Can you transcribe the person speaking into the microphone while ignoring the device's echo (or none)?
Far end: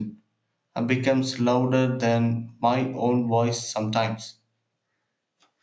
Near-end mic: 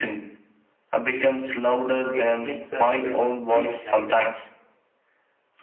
It makes the stress feel lighter.